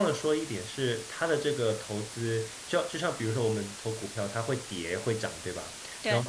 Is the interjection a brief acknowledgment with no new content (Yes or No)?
Yes